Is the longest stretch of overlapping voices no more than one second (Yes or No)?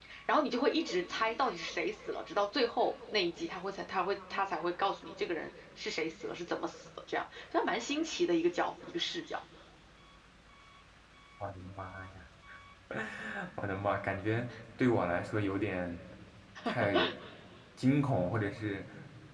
Yes